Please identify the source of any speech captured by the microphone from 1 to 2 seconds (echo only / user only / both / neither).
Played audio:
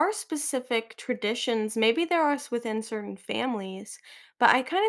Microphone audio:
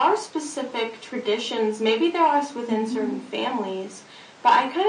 echo only